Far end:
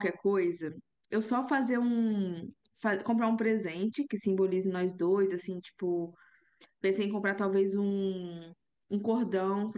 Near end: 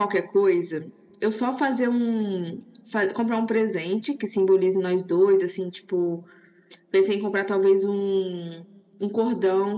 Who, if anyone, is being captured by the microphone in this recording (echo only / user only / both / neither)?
echo only